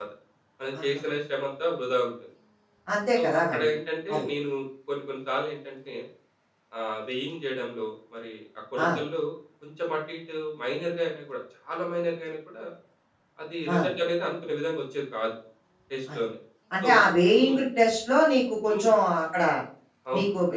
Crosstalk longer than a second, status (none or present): none